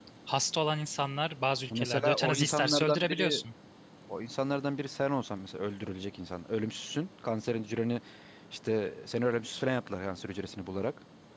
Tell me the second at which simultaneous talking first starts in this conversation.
1.7 s

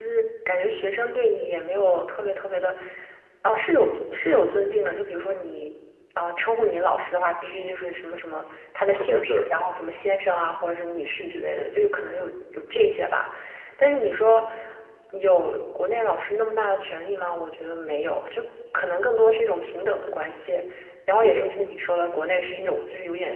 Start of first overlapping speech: 8.9 s

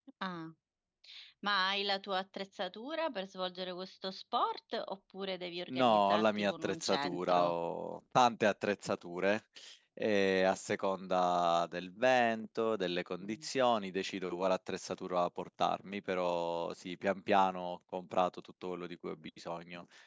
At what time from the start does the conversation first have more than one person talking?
5.7 s

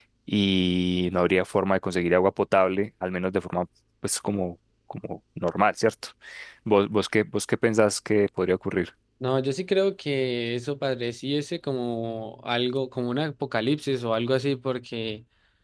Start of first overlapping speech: none

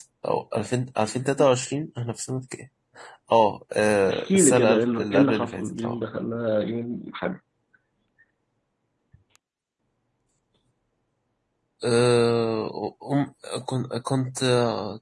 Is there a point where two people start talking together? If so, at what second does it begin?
4.1 s

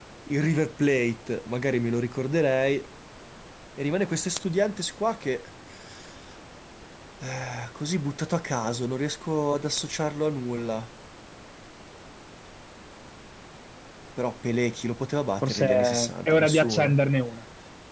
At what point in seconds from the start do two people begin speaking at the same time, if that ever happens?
15.4 s

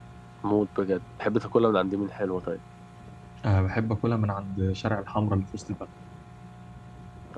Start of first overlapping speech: none

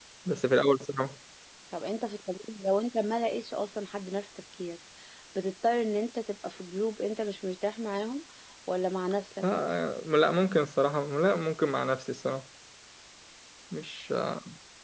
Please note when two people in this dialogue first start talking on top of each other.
none

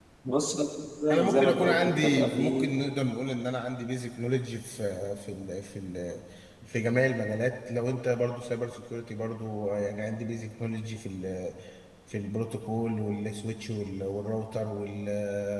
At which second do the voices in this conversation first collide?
1.1 s

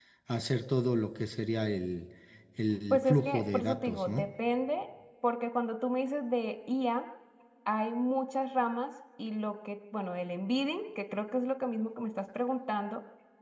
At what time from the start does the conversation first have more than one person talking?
2.9 s

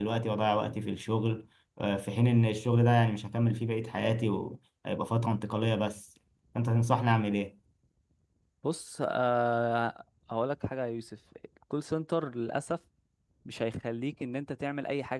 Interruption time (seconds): none

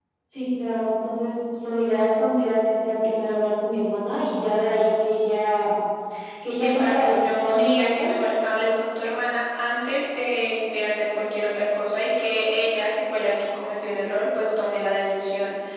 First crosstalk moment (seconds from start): 6.6 s

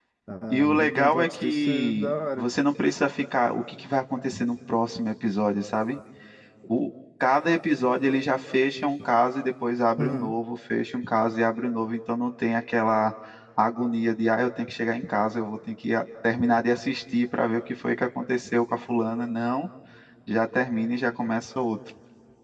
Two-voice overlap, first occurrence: 0.5 s

